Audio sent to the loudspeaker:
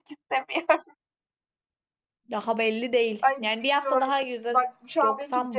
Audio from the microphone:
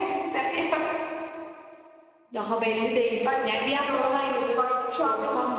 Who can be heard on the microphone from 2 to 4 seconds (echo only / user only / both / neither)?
echo only